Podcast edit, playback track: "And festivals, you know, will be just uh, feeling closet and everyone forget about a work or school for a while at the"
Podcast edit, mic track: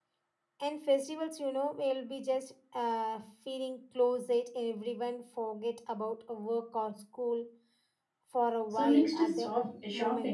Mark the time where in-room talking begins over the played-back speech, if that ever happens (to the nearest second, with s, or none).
9 s